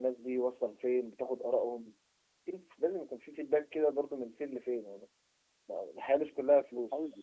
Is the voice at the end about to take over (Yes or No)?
Yes